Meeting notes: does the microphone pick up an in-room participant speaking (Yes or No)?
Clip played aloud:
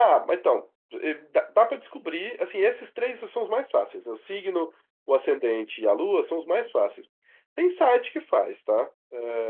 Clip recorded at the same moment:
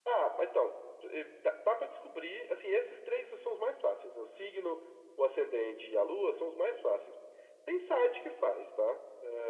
No